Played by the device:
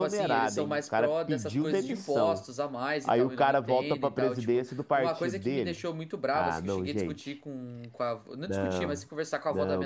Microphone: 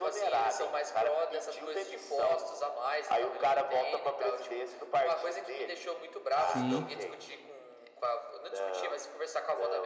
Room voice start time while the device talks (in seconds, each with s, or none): 6.4 s